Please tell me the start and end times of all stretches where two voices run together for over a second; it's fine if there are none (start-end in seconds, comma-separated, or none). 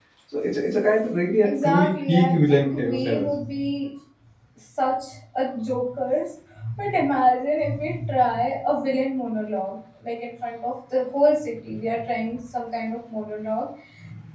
1.4-3.3